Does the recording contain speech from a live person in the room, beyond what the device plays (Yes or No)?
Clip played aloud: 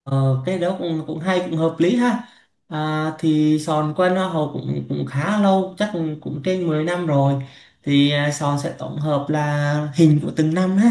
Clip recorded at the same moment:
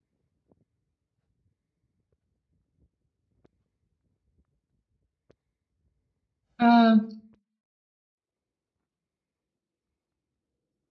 Yes